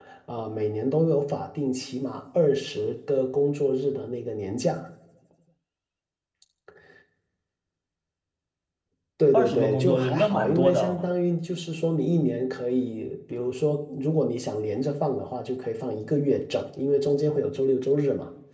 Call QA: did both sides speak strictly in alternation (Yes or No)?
No